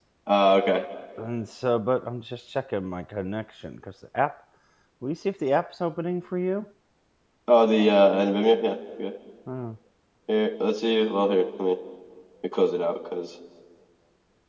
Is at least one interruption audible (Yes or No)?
No